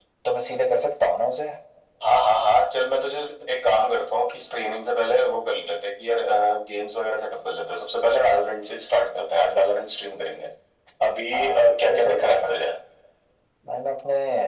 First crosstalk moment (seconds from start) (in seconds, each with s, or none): 11.3 s